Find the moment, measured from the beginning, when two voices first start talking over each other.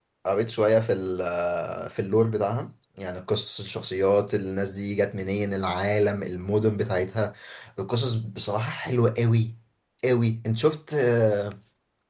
none

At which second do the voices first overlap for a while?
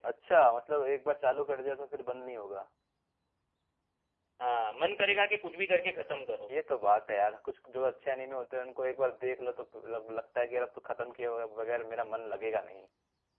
none

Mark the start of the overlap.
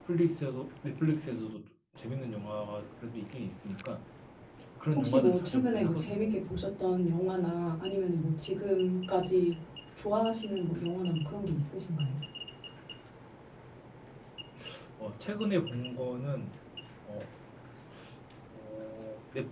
5 s

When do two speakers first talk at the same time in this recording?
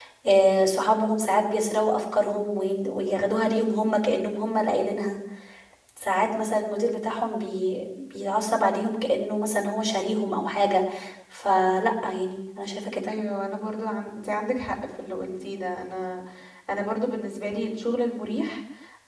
none

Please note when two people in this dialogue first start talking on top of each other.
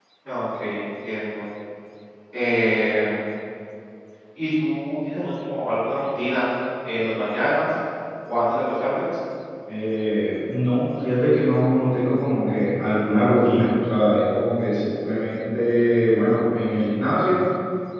none

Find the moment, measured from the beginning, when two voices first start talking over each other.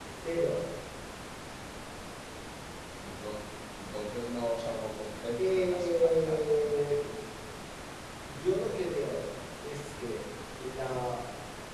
5 s

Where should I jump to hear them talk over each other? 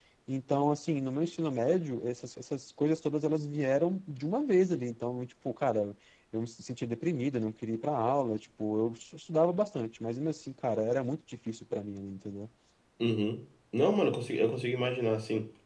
none

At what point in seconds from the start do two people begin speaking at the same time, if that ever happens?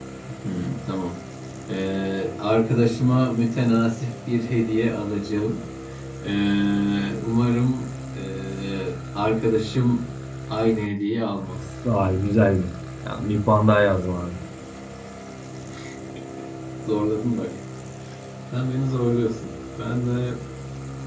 none

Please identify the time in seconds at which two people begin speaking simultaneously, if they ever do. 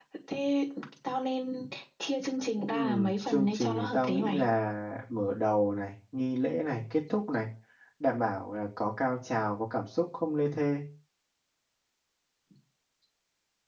3 s

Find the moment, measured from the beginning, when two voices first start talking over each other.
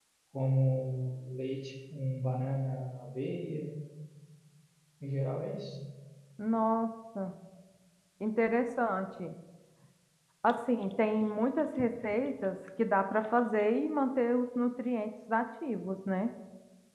none

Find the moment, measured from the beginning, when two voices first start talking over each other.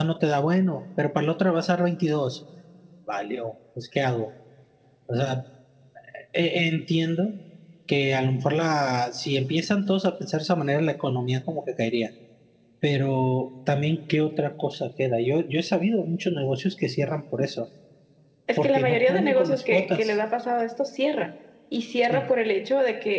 19 s

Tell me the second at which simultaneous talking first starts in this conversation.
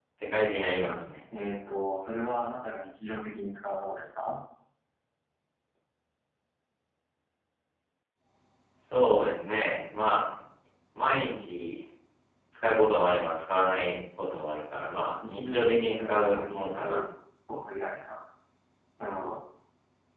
15 s

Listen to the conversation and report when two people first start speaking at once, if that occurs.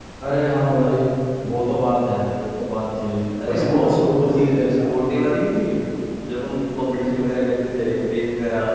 3 s

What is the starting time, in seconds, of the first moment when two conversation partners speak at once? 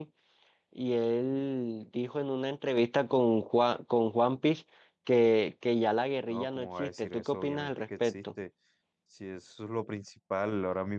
6 s

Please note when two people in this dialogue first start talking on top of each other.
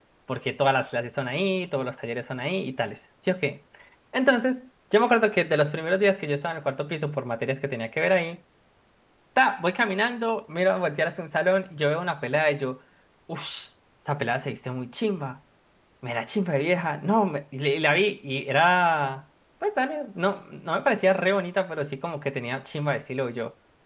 none

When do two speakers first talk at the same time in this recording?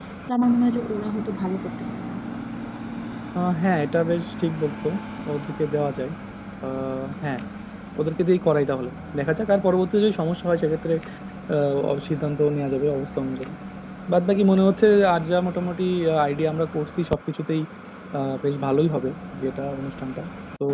none

